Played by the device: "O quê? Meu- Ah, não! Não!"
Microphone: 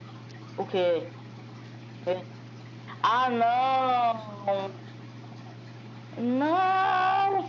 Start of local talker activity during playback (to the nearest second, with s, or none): none